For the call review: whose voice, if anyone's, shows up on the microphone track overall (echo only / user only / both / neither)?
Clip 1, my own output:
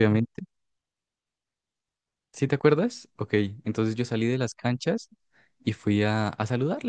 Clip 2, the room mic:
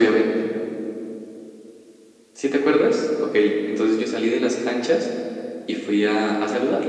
echo only